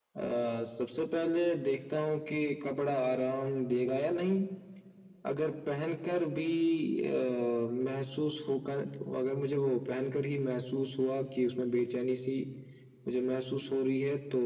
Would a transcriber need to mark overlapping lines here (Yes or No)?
No